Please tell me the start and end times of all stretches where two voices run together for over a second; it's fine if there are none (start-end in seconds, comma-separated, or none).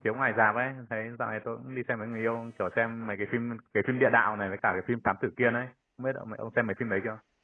none